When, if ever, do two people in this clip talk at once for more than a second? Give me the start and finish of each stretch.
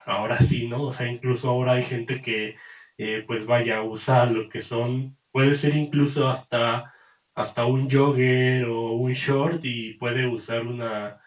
none

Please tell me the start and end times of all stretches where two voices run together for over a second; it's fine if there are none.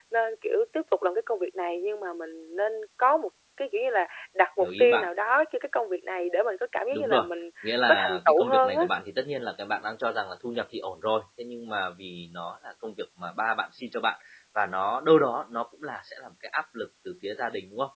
7.6-8.9

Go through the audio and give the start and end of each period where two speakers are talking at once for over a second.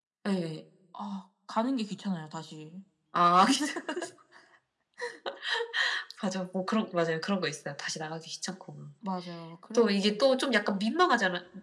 none

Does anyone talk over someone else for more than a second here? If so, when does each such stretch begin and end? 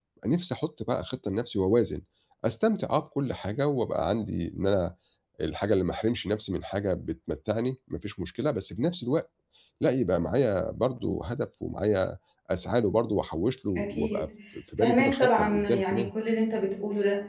14.8-16.1

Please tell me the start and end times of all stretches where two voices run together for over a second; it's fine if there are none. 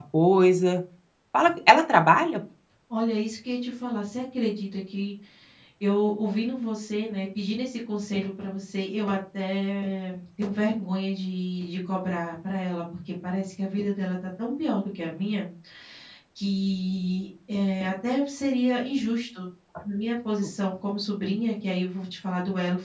none

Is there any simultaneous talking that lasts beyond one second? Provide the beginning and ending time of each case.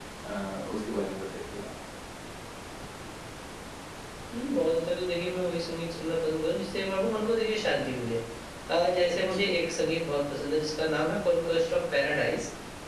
none

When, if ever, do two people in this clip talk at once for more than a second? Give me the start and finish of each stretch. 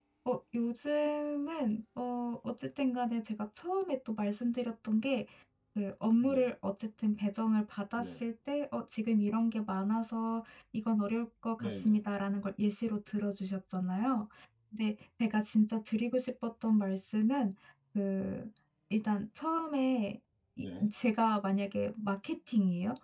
none

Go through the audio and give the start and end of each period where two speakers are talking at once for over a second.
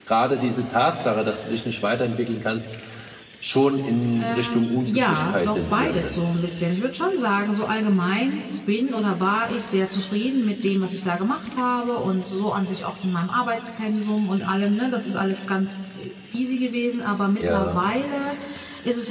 4.2-6.2

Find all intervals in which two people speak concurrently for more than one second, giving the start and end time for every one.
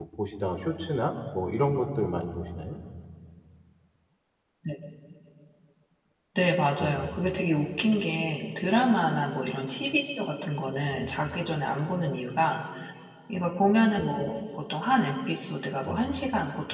none

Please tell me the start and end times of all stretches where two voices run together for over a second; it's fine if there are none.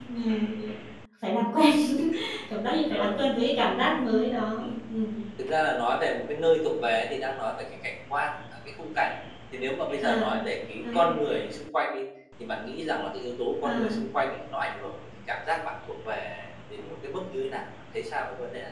none

